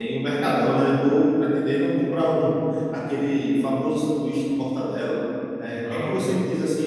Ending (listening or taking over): listening